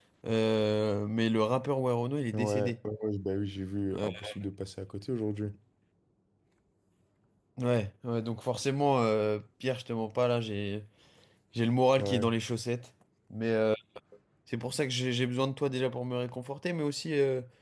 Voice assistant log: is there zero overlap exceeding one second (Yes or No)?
Yes